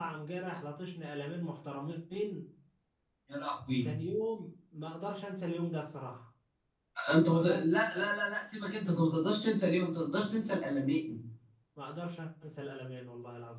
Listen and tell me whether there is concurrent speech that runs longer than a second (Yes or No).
No